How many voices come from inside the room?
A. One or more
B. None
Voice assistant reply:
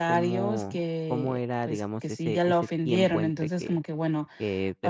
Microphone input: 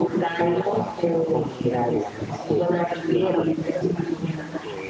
B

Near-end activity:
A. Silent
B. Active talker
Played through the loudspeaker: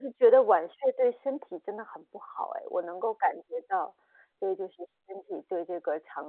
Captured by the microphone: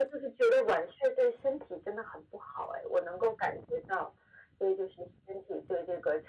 A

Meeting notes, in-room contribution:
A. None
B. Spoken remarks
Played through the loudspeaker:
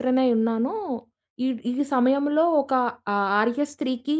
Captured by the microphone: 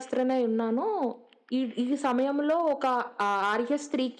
A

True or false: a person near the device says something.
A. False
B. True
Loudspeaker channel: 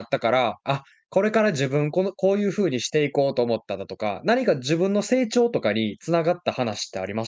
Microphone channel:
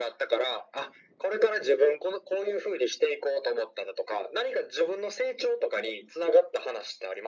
A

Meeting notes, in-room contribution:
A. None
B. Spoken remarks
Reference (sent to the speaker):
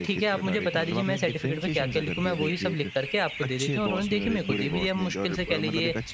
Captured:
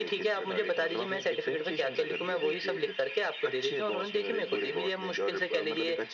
A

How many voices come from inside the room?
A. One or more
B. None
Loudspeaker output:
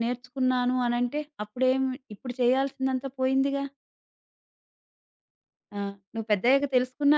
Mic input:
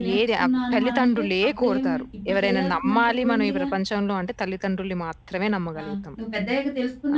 A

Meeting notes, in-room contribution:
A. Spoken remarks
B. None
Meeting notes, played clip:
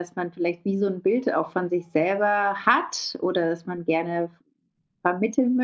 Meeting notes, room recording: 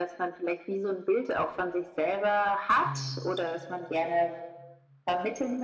A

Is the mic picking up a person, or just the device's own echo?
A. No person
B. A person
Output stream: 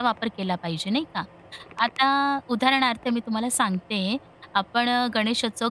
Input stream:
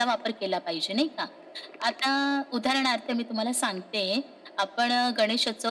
A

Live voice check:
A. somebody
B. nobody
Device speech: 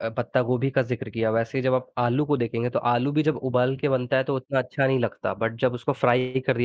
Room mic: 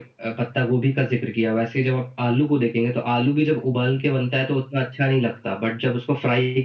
B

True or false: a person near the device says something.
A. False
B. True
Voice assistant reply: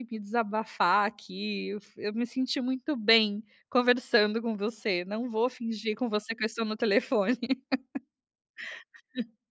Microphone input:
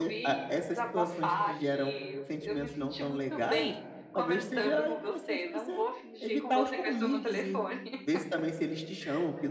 B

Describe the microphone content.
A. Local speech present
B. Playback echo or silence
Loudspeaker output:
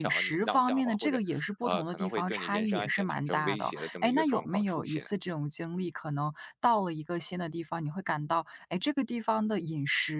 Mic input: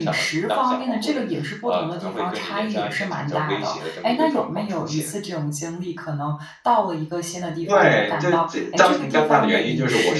A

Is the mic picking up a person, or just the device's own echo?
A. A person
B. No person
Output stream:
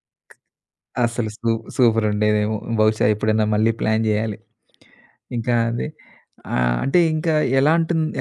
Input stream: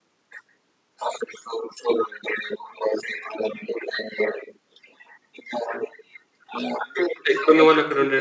A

